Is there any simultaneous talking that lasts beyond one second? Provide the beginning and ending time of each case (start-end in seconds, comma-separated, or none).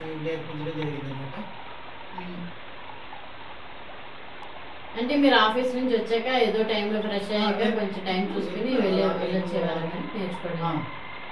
8.1-9.9